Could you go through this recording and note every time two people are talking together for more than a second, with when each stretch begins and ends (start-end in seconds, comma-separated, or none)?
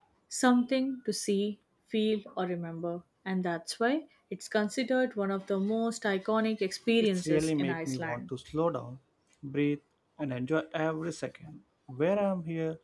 7.0-8.2